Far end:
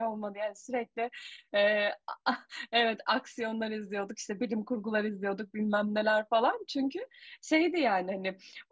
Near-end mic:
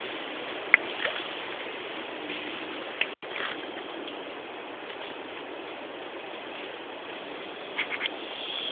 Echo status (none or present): none